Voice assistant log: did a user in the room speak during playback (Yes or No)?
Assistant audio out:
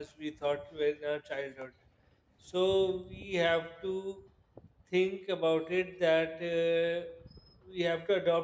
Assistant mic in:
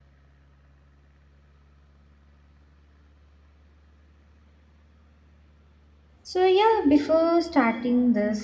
Yes